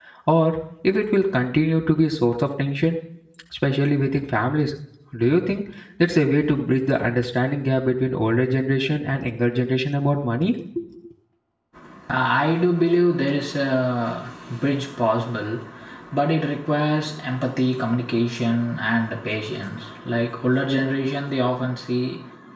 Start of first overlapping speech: none

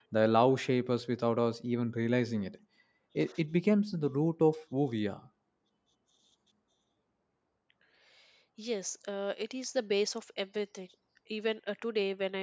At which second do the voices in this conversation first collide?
none

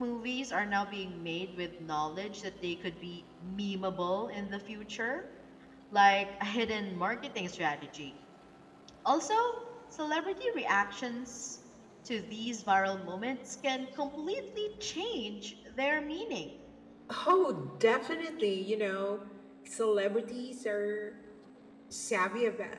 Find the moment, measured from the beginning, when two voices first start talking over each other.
none

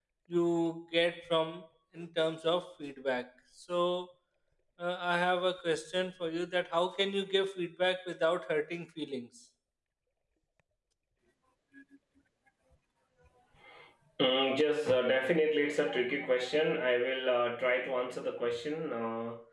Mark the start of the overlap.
none

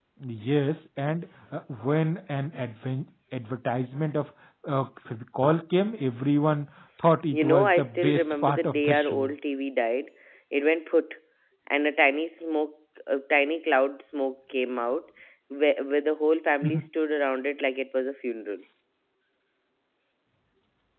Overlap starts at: 7.3 s

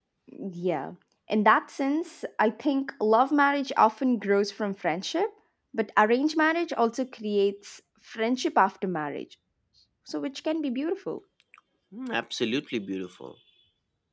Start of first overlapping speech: none

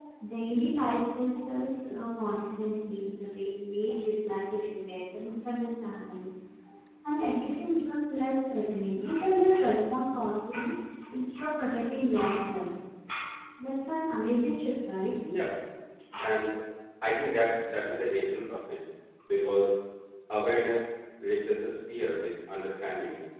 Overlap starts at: none

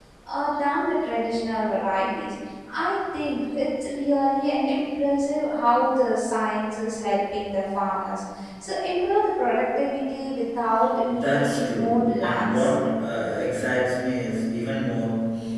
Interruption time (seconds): 11.1 s

